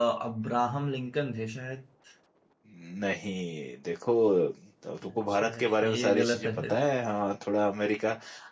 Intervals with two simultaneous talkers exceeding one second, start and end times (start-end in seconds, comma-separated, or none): 5.1-6.7